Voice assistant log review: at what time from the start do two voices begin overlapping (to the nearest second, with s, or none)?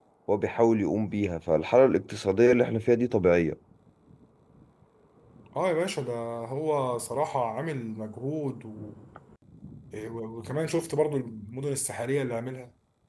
none